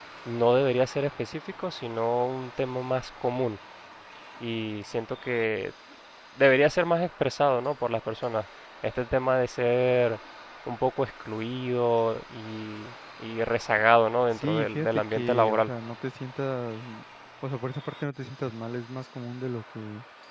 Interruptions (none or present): present